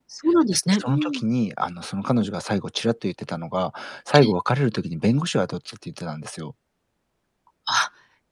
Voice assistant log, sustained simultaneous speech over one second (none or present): none